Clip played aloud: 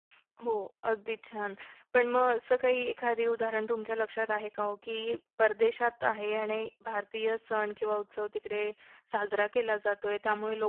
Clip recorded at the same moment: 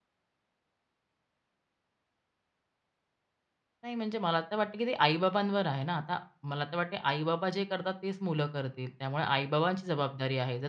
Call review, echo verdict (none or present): none